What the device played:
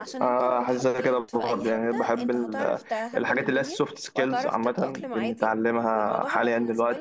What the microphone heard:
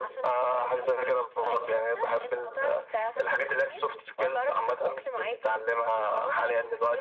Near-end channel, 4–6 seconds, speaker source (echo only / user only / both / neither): echo only